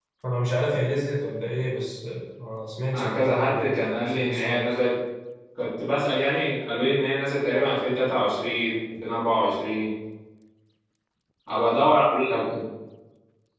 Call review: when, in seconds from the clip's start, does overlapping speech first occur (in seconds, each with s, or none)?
2.9 s